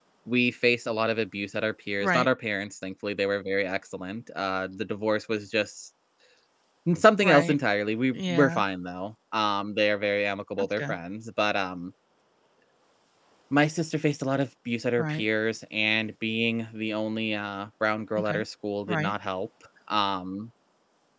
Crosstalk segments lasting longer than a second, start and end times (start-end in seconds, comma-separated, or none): none